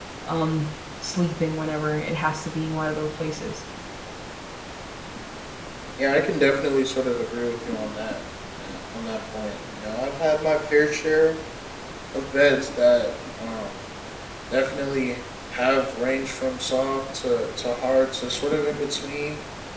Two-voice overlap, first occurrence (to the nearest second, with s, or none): none